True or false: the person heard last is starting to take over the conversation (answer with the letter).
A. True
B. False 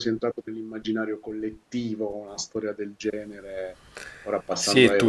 A